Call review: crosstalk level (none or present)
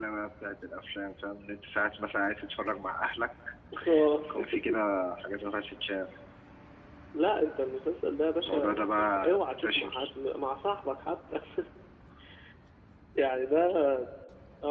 present